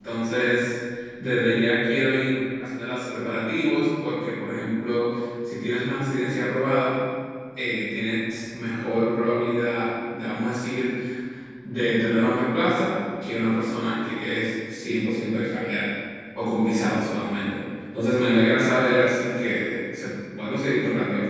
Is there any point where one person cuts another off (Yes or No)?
No